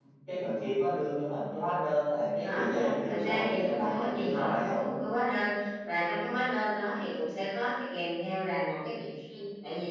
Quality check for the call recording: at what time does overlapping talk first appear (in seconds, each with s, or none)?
2.4 s